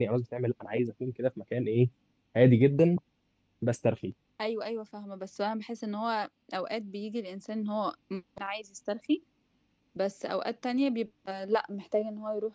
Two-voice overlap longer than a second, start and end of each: none

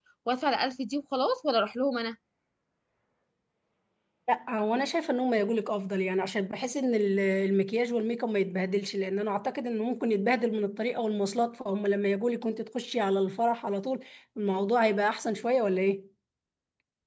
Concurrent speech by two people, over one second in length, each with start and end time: none

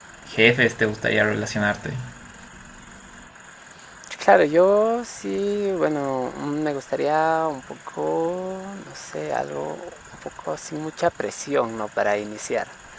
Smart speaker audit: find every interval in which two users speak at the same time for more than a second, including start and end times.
none

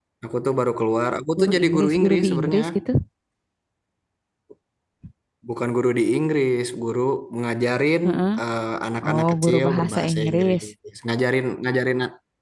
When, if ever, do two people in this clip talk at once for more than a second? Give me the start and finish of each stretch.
1.4-2.6, 9.1-10.6

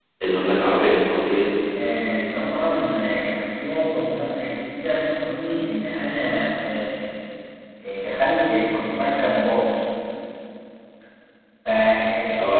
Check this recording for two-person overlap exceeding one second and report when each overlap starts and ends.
none

